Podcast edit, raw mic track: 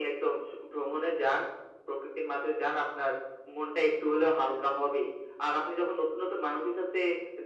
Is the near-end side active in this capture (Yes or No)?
No